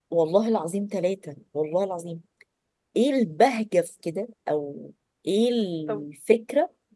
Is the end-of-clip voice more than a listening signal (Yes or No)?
No